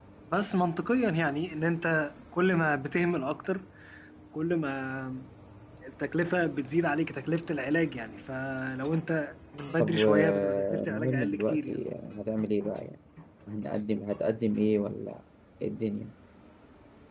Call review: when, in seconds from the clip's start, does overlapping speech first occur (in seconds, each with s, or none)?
9.8 s